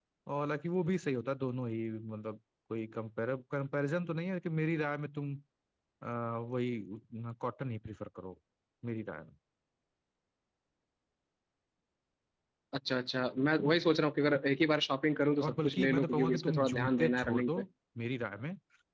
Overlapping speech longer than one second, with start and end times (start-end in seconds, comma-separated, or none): 15.4-17.6